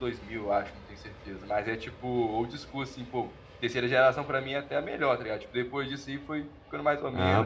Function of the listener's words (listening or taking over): taking over